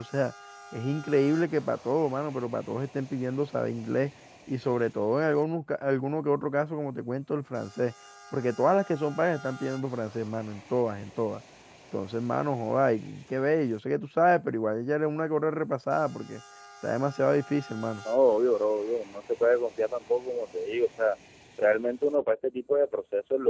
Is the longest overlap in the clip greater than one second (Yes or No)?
No